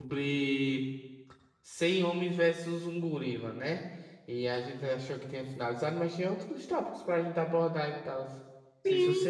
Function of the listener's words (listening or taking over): taking over